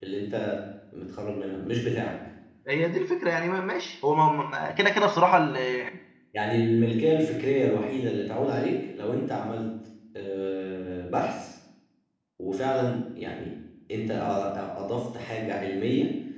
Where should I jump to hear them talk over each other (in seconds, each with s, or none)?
none